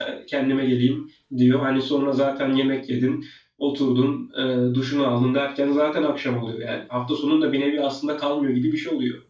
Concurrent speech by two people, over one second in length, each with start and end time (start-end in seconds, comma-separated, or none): none